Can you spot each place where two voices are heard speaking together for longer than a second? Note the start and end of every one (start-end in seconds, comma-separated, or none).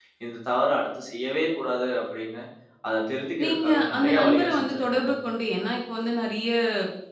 3.4-5.1